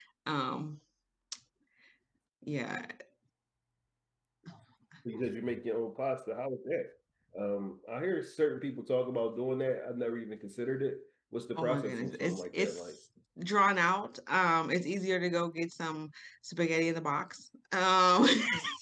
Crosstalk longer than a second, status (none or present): present